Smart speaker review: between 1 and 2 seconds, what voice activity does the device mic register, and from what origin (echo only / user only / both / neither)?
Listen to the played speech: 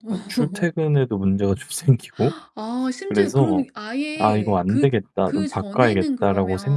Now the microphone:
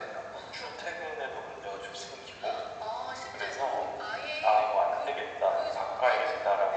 echo only